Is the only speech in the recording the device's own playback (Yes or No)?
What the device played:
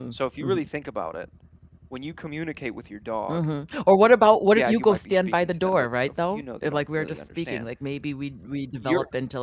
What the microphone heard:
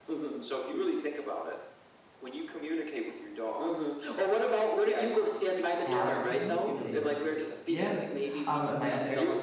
No